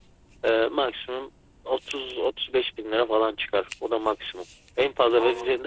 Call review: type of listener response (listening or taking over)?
listening